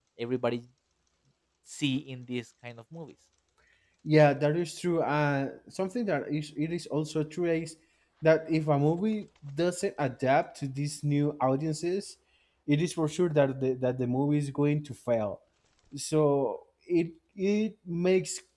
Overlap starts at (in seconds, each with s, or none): none